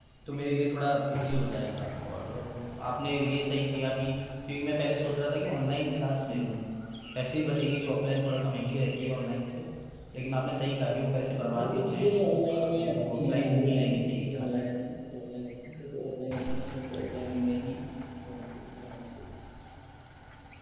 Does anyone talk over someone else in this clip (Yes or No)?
Yes